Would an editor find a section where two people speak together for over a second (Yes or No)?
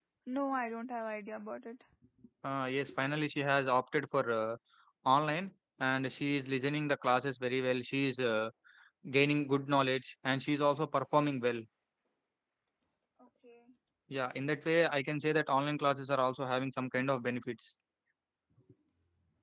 No